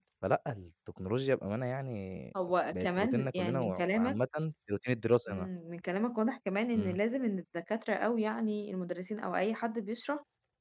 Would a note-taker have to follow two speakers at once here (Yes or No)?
Yes